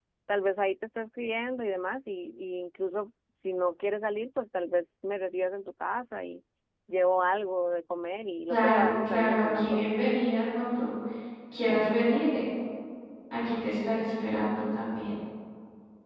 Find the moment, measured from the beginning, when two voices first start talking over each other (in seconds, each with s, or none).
8.5 s